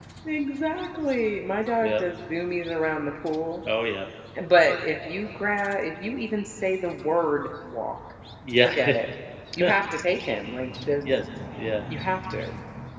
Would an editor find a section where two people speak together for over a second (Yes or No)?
No